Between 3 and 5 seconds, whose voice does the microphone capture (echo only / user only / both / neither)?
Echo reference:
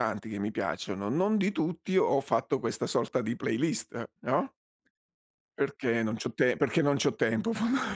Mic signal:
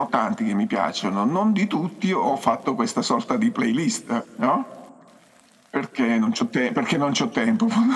echo only